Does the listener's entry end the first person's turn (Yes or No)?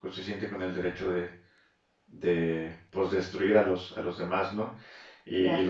No